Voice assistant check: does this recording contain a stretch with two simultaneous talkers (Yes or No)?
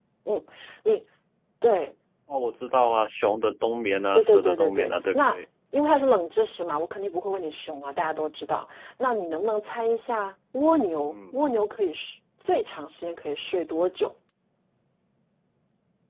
Yes